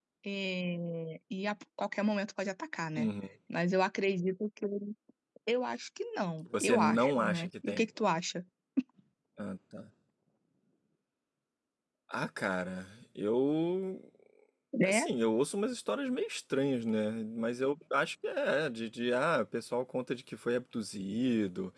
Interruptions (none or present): present